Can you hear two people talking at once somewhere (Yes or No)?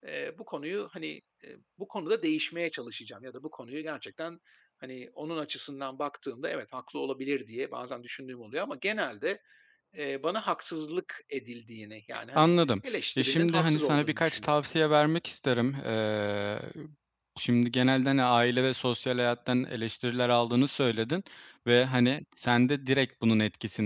Yes